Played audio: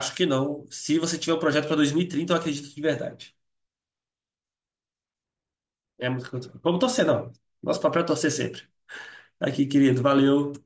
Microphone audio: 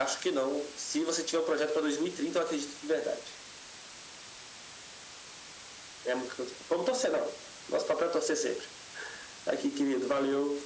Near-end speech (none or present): none